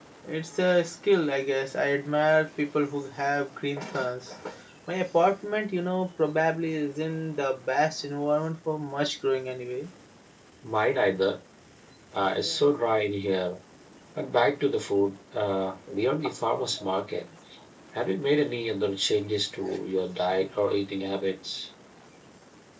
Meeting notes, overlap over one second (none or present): none